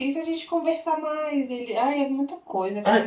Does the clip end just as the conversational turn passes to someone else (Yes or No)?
Yes